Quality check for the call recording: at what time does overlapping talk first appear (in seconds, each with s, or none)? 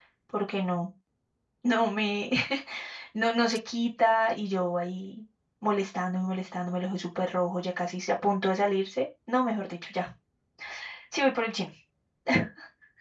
none